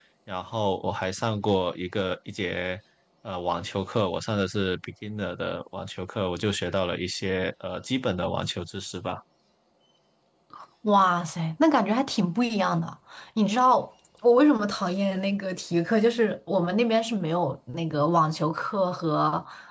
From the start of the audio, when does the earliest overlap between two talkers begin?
none

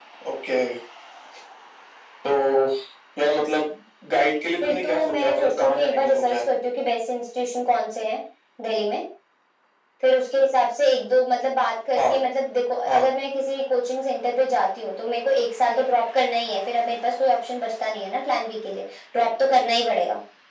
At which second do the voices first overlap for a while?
5 s

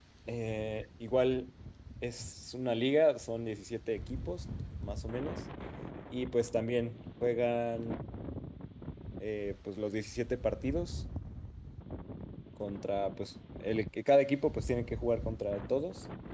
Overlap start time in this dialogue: none

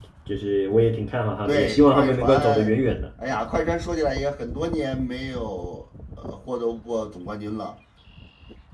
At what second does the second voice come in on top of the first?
1 s

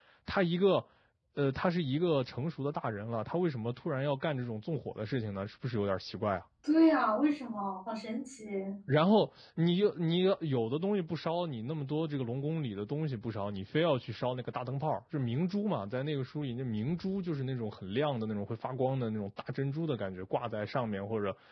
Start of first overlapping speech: none

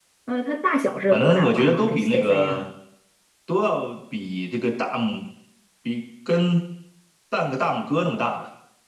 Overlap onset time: 1 s

